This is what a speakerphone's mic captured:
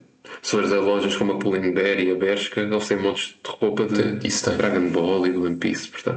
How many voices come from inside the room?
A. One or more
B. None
A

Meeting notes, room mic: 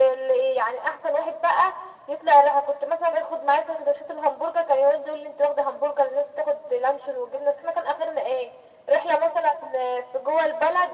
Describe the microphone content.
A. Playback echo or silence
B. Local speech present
A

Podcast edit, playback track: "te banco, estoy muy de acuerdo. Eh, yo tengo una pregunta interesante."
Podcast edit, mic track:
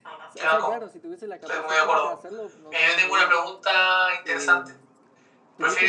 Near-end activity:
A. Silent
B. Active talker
B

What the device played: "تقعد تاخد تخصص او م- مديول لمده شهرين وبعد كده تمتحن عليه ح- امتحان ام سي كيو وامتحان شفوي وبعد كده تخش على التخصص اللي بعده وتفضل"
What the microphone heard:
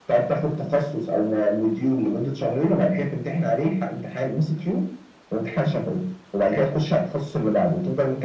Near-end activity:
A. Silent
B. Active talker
A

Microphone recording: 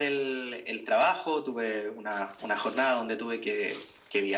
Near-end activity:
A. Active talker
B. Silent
B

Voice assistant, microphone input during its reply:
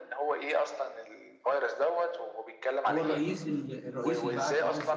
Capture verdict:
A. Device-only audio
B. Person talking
B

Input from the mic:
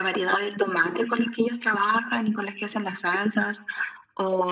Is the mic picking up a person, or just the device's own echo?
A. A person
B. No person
B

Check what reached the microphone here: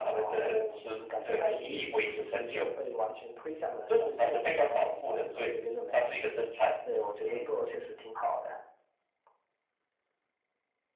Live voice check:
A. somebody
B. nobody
B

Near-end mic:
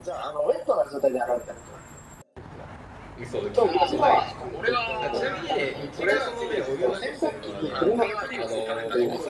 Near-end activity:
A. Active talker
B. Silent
A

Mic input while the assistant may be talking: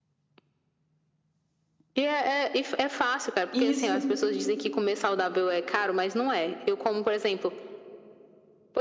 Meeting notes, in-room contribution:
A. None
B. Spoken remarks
B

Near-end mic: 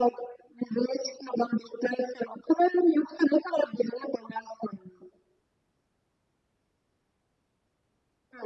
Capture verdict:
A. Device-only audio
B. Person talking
A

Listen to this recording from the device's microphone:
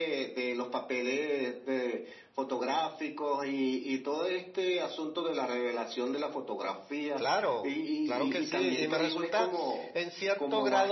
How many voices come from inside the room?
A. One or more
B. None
A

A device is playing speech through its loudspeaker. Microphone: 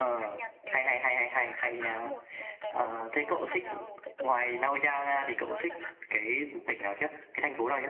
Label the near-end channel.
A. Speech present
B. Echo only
A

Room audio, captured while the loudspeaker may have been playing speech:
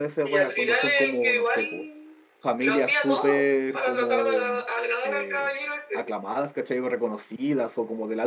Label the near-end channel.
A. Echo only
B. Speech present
B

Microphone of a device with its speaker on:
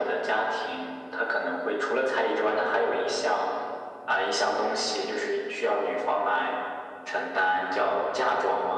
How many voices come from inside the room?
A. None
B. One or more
A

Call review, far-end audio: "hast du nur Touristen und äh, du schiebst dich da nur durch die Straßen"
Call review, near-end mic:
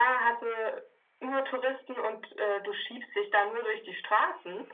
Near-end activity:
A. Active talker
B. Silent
B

